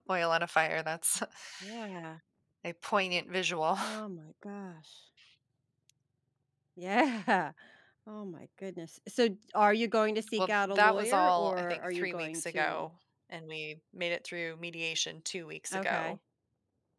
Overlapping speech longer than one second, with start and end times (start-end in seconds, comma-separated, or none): 10.4-12.9